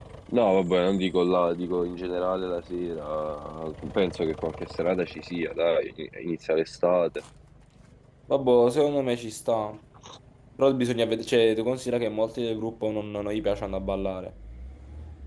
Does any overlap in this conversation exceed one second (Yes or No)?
No